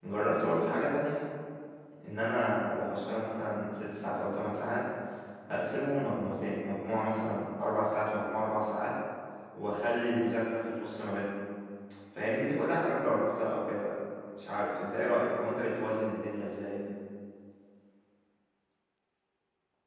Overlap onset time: none

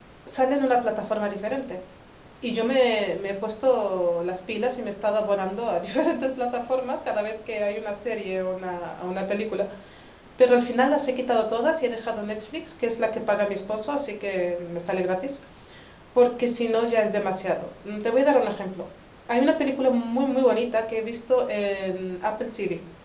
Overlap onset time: none

